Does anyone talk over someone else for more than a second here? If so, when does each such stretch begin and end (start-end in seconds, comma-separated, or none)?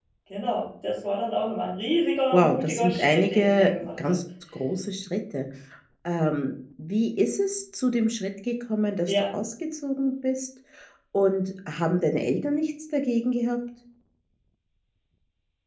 2.3-4.2